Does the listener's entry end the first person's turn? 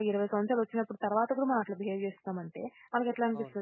No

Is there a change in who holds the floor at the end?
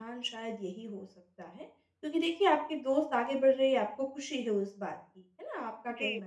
No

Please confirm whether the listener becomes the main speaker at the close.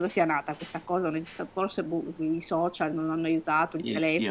Yes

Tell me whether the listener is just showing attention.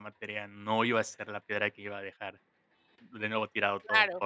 No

